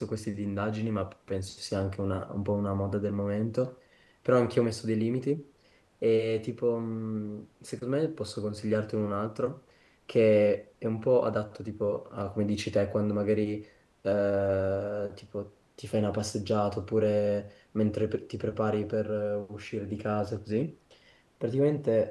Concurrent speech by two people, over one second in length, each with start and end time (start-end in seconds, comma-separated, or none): none